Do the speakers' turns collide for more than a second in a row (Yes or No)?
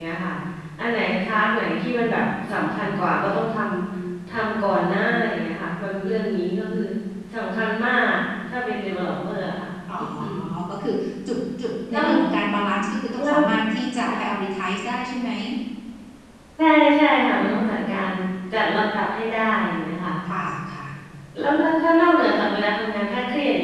No